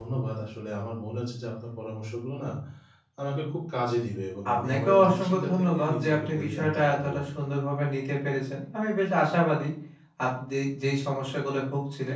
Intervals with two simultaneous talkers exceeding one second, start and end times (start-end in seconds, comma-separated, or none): 4.5-7.2